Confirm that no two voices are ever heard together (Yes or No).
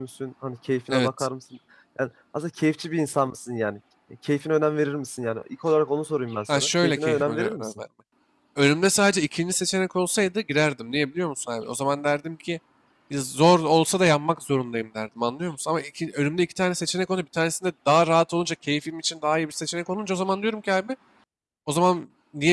No